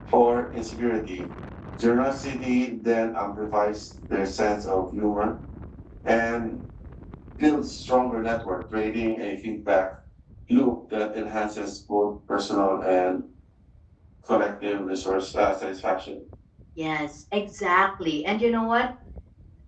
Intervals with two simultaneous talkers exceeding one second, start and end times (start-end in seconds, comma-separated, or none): none